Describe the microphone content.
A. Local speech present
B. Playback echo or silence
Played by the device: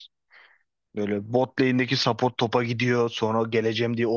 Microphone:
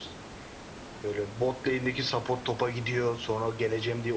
B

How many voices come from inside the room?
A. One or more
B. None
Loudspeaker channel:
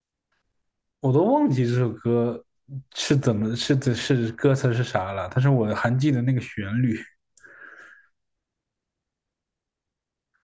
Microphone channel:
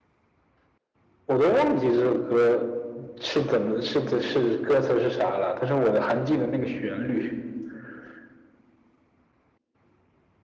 B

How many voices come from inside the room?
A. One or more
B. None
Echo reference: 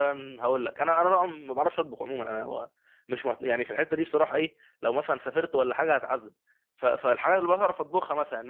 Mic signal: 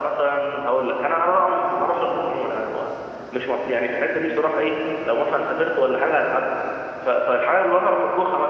B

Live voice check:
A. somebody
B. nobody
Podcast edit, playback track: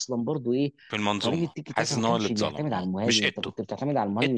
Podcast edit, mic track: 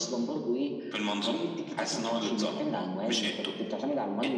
B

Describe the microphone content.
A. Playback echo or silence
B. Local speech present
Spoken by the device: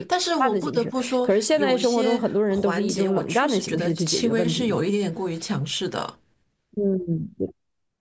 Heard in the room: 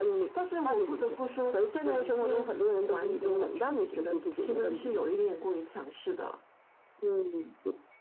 A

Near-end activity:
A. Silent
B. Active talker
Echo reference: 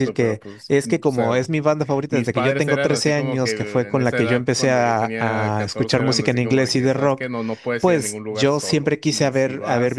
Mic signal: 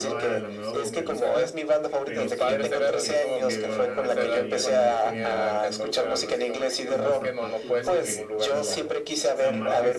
B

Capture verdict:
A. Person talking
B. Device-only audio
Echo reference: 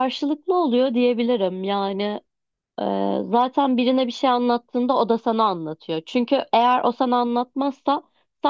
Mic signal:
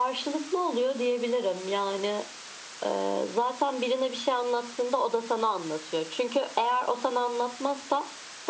B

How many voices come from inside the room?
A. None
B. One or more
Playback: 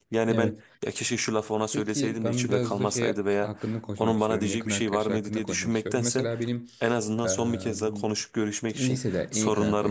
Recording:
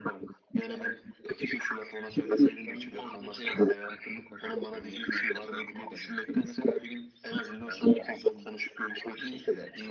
A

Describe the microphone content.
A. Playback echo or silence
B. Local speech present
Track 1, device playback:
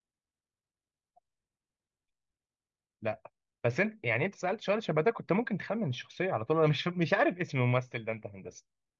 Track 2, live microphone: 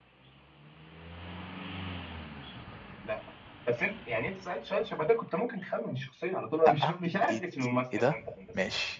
B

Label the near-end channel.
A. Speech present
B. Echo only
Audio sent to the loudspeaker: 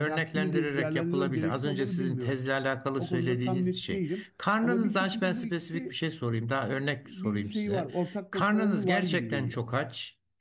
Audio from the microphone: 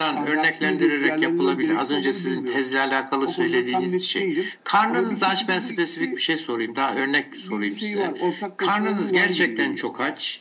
B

